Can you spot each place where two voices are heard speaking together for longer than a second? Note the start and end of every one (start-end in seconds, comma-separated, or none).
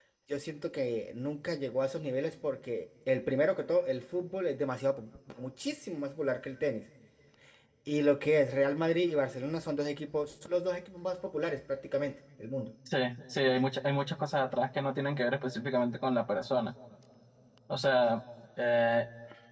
none